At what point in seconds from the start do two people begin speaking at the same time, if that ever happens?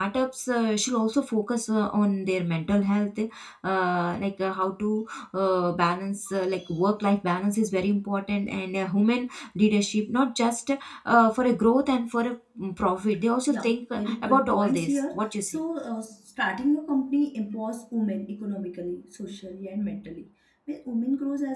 13.5 s

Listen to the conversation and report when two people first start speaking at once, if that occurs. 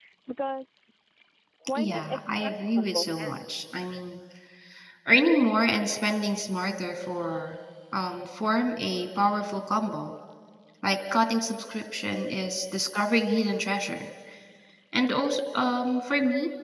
1.7 s

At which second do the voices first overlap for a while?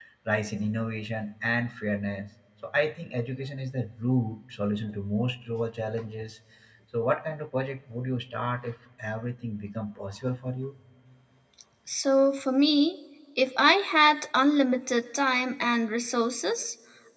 none

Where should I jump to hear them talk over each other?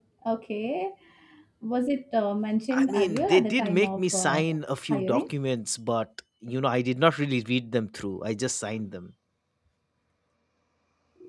2.7 s

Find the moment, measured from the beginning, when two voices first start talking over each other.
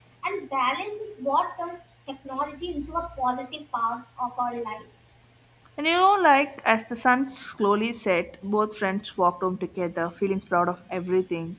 none

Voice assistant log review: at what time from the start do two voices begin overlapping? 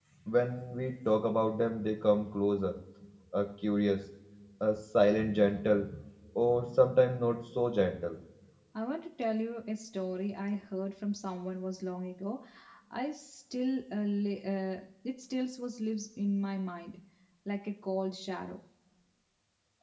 none

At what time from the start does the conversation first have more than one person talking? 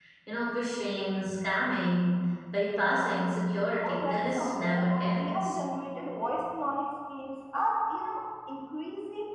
3.8 s

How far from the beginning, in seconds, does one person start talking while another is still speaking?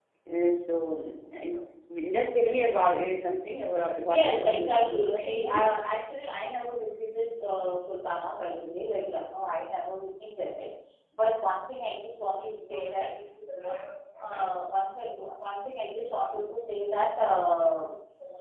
4.1 s

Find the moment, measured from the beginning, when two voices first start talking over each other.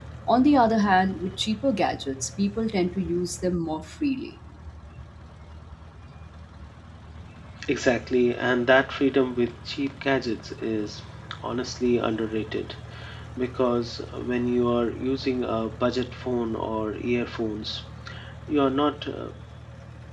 none

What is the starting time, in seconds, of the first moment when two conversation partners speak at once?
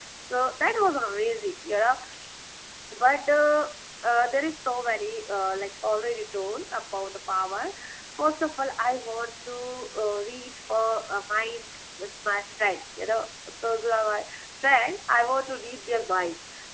none

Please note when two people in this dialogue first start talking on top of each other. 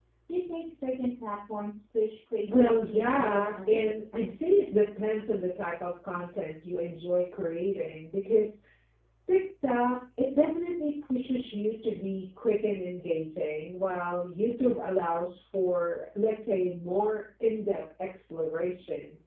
2.5 s

